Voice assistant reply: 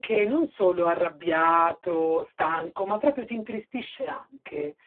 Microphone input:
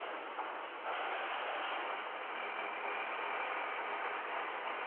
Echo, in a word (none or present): none